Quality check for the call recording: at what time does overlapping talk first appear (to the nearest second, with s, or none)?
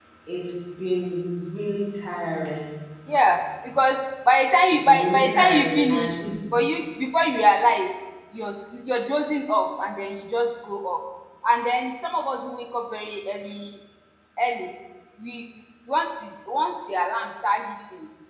5 s